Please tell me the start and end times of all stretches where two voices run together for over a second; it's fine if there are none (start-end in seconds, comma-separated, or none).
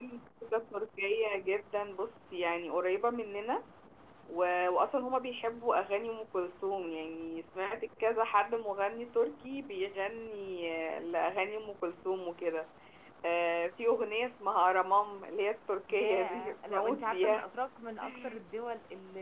15.9-17.4